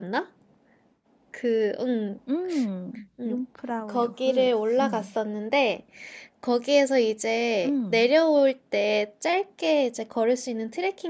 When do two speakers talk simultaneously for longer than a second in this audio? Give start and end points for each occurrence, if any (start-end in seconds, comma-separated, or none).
3.9-5.1